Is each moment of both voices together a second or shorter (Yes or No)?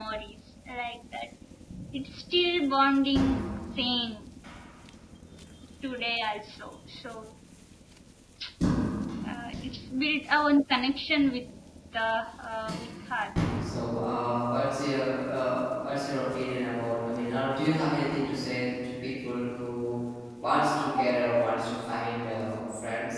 Yes